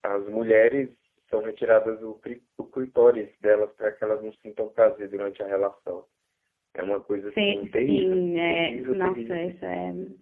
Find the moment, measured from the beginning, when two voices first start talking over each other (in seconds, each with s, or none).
7.3 s